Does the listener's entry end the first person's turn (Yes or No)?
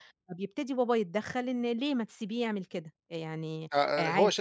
Yes